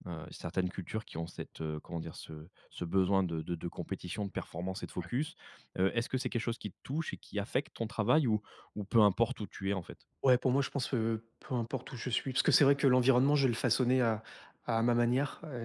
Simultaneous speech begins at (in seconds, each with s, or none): none